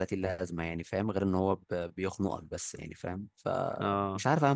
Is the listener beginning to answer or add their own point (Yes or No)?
Yes